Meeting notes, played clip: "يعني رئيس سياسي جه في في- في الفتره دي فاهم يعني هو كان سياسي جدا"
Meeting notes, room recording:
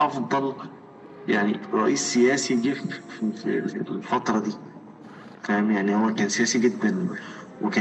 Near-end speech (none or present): none